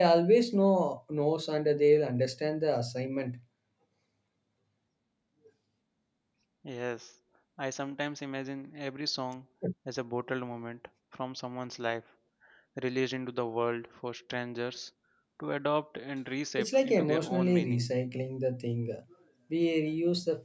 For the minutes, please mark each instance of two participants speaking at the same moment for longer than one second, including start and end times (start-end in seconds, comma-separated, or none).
16.6-17.9